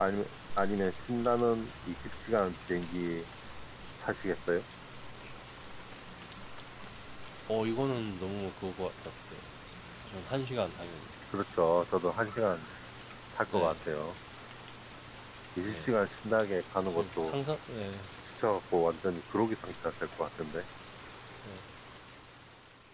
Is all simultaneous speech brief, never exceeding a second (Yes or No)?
Yes